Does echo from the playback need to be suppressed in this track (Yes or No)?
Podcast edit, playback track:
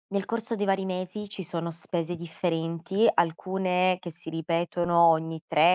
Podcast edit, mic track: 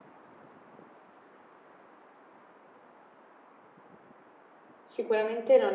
No